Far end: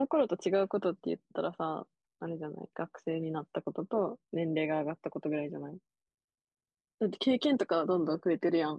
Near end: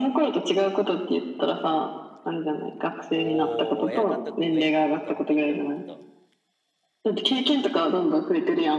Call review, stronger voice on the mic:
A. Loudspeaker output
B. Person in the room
A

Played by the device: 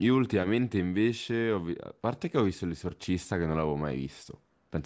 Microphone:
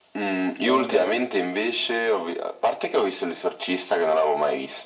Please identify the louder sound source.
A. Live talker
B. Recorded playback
B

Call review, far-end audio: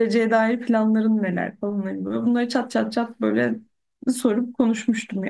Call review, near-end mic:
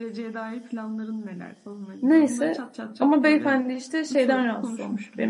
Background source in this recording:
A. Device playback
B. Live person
A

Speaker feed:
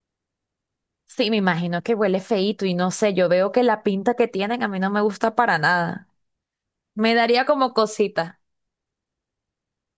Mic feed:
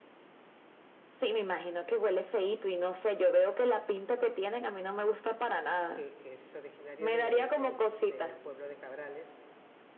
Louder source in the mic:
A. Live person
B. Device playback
B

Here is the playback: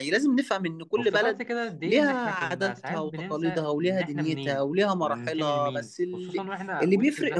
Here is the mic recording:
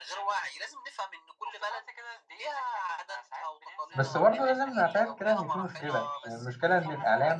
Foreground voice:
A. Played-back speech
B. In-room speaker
B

